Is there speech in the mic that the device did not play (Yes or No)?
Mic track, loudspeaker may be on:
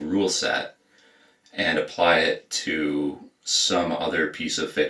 Yes